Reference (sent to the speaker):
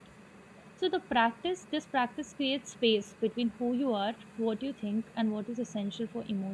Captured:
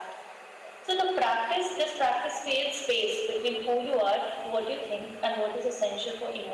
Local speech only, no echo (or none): none